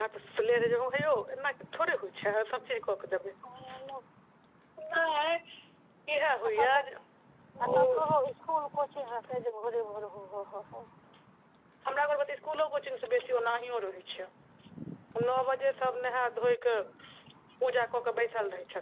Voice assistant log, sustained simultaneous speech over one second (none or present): none